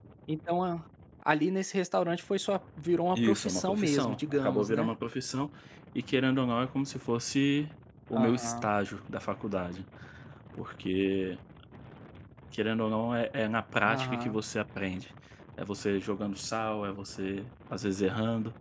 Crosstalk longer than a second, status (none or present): present